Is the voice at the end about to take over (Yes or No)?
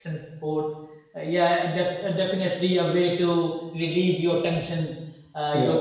No